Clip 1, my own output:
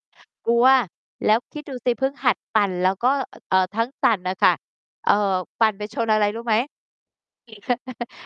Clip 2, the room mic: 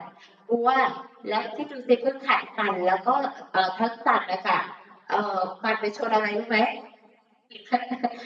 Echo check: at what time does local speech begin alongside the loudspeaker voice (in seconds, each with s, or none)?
none